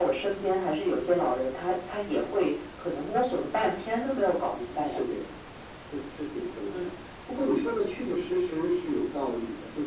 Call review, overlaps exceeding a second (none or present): none